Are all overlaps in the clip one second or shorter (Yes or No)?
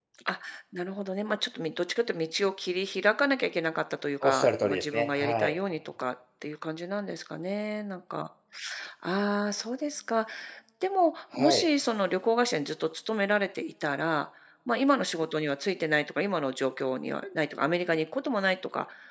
No